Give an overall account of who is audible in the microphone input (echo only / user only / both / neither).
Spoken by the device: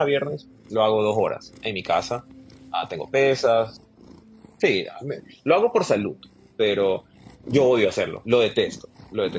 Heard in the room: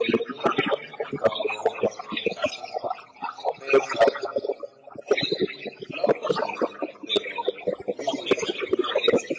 echo only